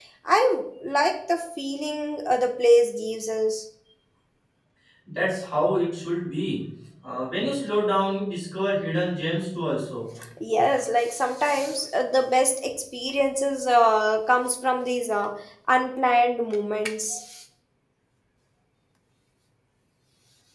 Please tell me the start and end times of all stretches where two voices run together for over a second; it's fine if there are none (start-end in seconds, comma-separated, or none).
none